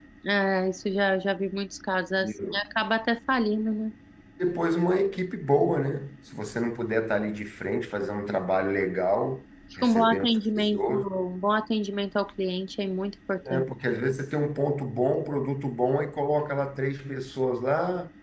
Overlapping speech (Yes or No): Yes